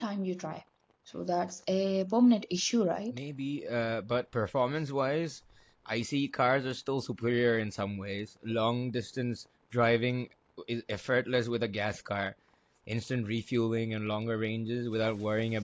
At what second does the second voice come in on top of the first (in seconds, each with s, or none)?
none